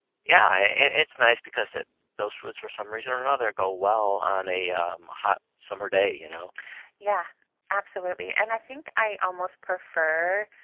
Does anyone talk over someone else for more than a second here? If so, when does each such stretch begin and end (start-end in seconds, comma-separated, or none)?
none